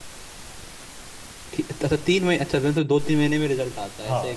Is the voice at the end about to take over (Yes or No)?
Yes